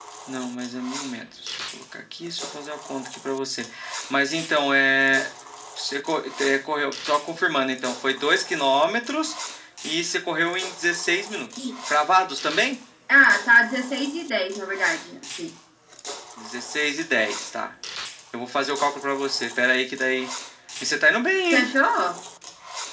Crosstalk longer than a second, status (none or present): none